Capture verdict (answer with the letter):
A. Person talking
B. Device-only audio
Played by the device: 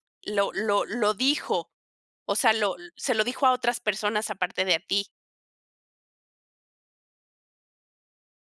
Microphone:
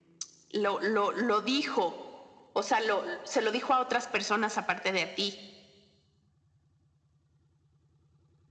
B